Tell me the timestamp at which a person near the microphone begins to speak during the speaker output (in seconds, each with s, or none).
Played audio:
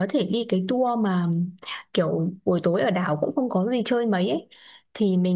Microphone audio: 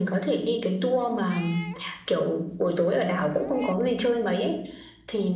none